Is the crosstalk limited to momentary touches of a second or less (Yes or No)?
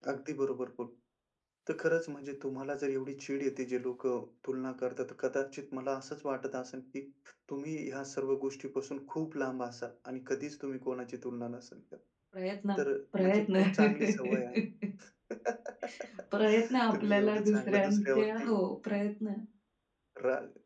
No